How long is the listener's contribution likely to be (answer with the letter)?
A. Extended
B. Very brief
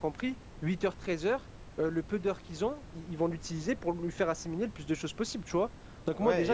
A